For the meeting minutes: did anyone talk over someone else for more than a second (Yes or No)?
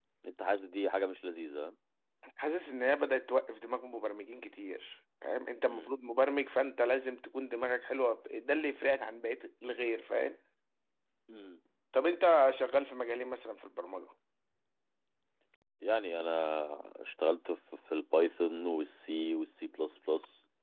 No